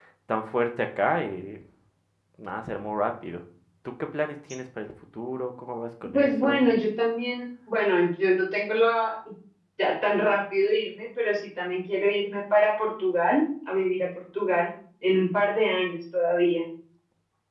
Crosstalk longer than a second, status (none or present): none